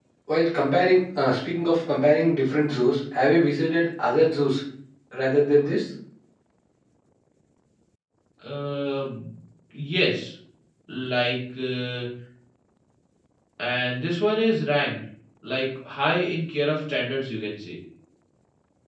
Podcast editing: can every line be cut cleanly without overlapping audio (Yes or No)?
Yes